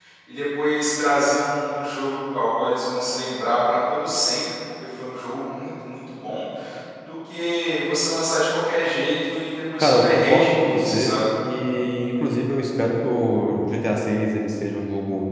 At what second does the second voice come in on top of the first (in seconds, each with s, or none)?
9.8 s